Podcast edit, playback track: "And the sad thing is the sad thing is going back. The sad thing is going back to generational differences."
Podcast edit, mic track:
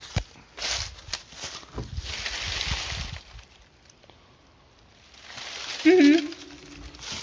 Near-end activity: present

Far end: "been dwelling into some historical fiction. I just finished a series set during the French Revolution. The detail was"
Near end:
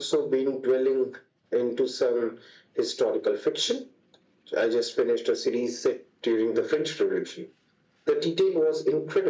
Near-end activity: none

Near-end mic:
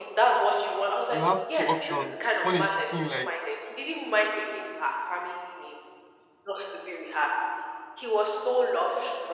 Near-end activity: present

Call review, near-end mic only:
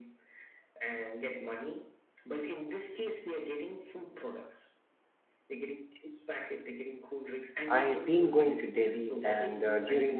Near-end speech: present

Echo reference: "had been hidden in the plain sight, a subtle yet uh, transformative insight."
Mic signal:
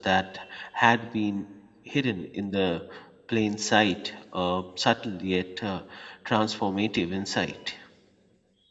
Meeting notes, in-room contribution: none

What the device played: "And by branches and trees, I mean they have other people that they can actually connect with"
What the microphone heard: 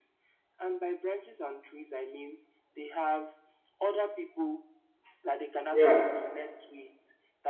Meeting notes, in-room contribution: present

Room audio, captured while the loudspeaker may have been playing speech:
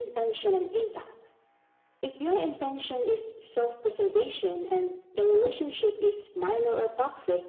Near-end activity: none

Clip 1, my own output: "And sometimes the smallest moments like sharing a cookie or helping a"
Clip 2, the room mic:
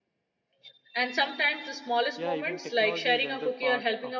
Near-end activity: present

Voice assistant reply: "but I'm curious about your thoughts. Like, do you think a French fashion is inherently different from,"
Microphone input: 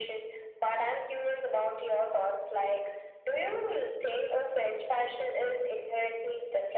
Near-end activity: none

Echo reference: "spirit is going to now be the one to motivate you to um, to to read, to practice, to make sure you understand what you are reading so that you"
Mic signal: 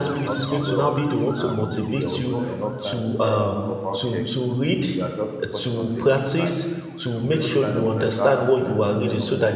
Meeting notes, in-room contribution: present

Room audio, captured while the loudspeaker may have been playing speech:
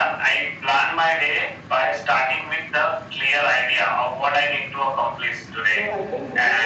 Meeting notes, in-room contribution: present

